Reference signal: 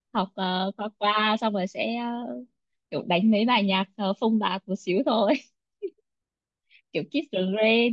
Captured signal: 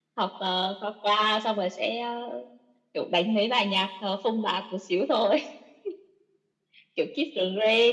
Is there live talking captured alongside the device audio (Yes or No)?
No